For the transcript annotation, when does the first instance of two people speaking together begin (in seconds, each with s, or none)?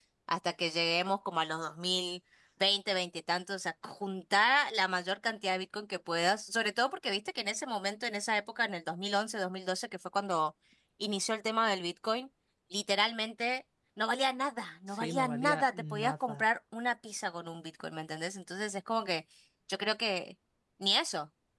14.9 s